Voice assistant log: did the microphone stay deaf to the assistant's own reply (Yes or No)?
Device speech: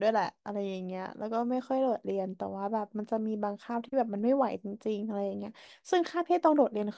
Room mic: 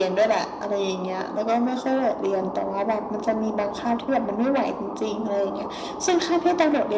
No